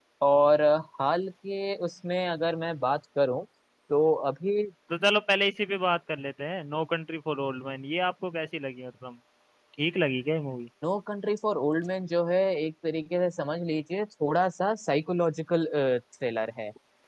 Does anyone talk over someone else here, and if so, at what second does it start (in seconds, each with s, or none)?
none